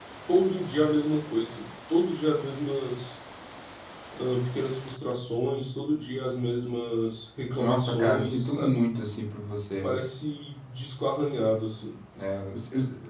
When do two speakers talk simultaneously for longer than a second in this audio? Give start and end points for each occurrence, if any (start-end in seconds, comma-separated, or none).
7.6-8.8